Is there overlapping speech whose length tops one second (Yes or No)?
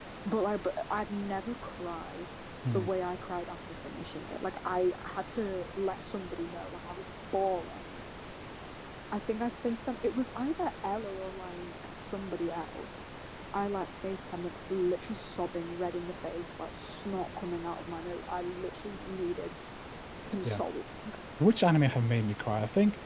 No